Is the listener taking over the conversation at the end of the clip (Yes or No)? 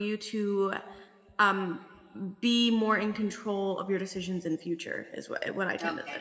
Yes